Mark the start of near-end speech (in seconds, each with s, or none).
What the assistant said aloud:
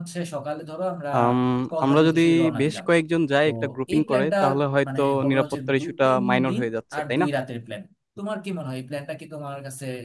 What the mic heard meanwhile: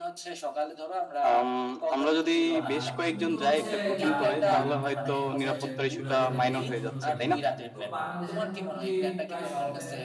2.6 s